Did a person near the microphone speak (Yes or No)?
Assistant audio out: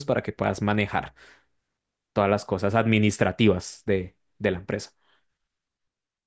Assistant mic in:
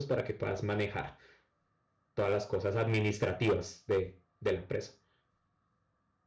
No